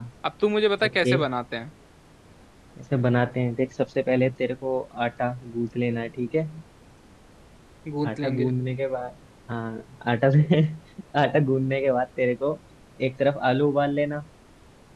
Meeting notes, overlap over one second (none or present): none